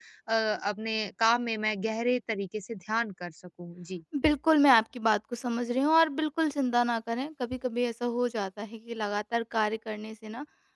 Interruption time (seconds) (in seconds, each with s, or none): none